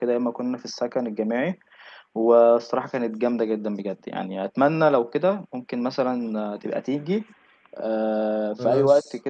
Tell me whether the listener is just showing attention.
Yes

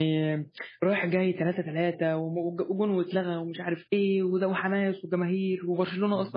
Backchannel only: No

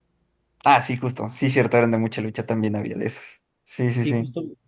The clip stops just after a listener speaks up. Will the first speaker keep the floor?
No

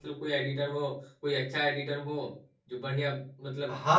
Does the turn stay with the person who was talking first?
No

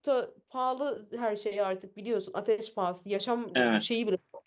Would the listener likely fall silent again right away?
Yes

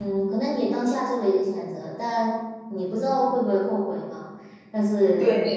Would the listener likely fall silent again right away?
Yes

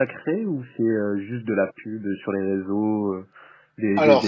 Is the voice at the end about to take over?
Yes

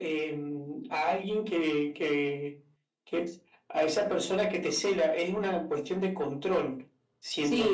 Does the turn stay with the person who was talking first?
No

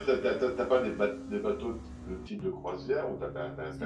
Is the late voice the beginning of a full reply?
No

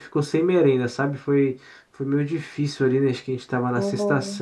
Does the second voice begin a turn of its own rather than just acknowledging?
No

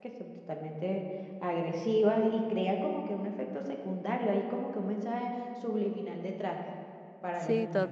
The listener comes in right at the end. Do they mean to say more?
Yes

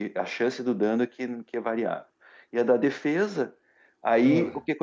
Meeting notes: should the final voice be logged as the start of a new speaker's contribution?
No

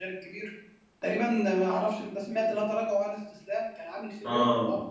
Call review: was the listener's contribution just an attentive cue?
No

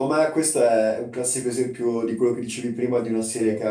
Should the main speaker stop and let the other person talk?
No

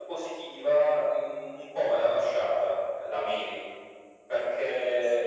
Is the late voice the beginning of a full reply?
No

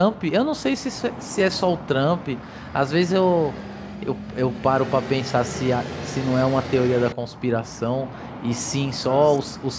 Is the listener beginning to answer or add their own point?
No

